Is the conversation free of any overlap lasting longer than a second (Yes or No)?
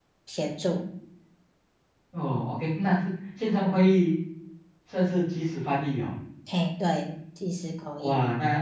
Yes